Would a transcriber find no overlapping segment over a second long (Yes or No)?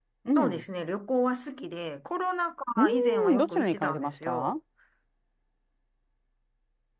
No